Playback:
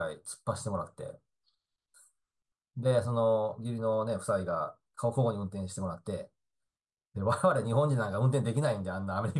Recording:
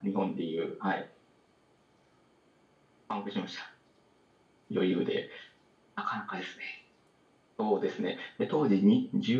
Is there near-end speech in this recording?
Yes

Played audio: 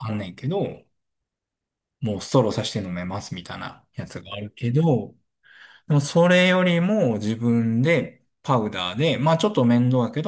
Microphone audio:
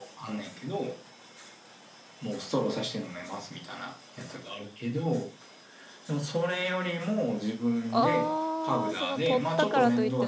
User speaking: Yes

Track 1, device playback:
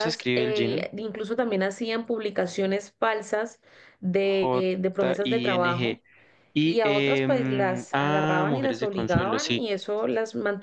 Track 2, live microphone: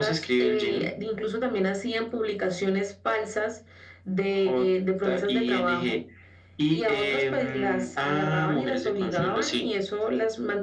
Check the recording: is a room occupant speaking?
No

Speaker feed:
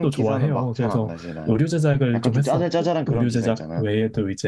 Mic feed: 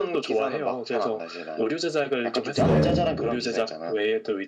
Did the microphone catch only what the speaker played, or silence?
No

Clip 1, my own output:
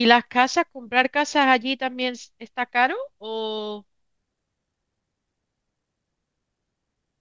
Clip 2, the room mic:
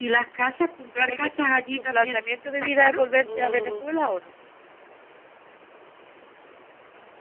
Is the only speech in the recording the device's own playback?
No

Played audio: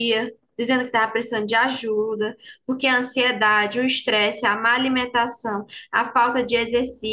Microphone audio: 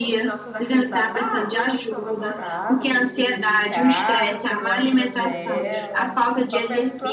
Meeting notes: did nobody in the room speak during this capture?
No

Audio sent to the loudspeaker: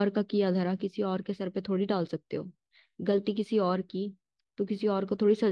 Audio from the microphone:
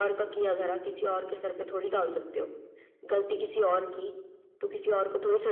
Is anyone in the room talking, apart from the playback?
No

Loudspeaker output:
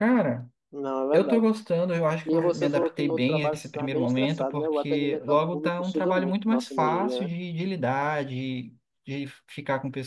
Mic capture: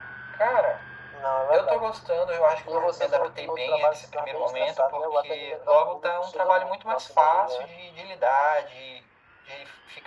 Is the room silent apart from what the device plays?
Yes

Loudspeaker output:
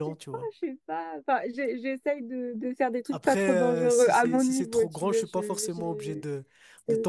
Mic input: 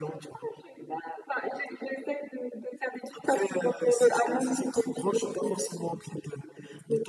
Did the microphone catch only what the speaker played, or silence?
Yes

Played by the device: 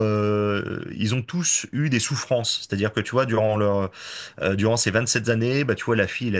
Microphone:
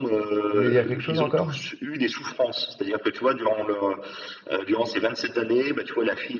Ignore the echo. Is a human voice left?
Yes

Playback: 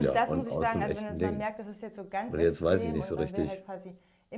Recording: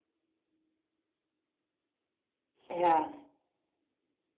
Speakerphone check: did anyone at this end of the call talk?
Yes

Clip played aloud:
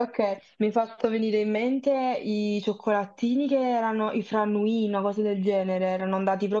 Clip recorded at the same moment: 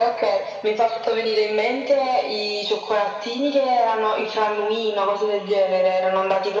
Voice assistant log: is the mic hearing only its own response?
Yes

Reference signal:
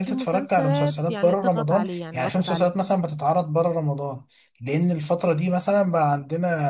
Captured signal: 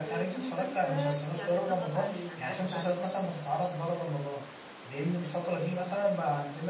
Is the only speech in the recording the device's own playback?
Yes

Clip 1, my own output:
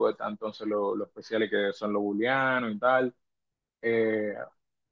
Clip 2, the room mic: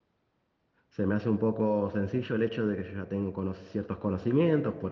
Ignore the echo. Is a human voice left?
Yes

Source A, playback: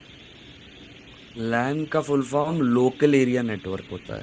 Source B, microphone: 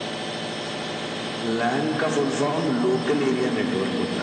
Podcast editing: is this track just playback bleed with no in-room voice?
Yes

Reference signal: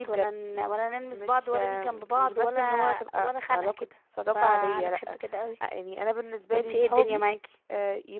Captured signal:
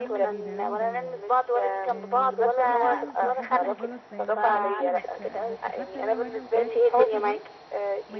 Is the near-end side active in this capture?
Yes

